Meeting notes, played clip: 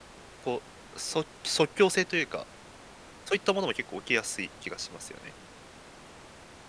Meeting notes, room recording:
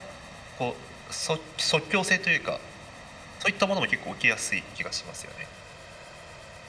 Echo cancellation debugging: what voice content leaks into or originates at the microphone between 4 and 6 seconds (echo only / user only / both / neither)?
echo only